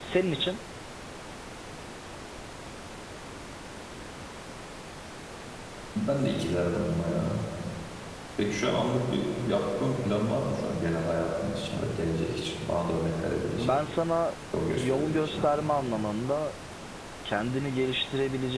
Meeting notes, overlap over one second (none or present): present